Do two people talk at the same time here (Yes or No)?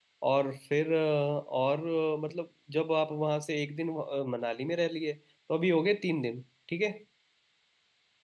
No